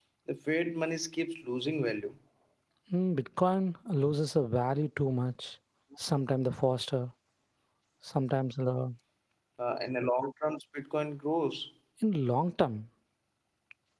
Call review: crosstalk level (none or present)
none